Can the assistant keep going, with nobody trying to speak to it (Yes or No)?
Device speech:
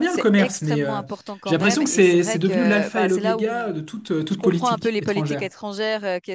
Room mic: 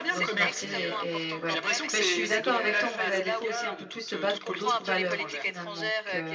No